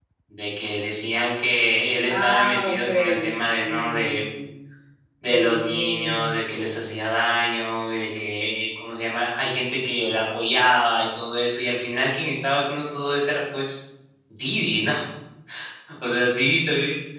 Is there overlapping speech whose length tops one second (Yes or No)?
Yes